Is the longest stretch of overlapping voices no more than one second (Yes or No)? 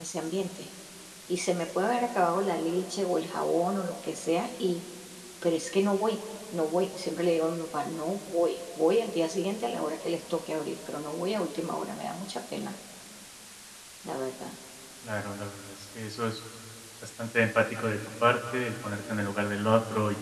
Yes